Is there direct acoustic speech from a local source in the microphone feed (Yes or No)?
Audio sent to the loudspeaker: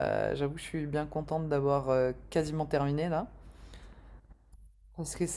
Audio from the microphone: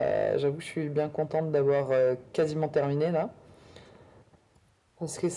No